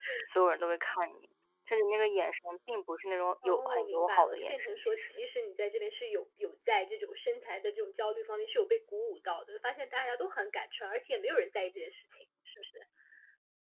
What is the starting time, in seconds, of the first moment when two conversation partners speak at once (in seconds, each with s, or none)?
3.4 s